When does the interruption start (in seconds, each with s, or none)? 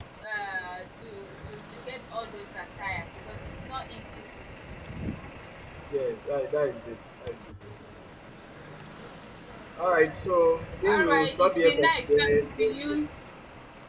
10.8 s